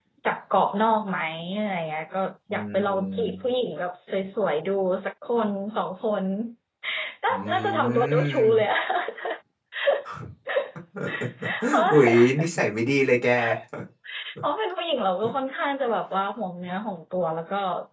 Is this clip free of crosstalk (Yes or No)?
No